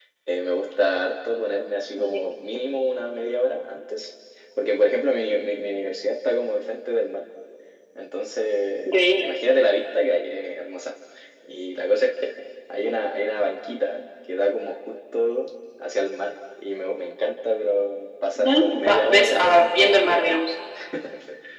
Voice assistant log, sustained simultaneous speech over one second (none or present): present